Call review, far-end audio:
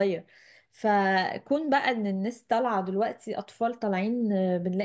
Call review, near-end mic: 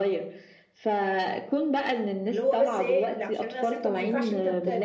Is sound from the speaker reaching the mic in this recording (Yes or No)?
Yes